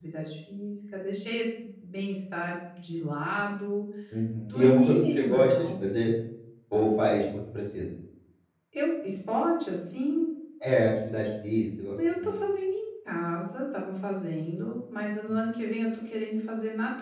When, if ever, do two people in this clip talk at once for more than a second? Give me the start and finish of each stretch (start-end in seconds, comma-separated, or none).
4.4-5.8